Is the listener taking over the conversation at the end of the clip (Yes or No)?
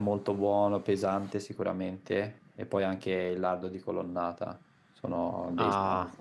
Yes